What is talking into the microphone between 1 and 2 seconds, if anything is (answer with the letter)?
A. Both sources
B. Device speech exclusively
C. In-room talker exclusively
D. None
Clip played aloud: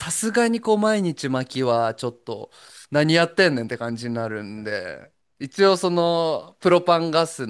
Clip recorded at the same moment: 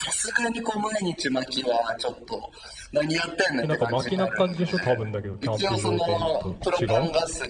B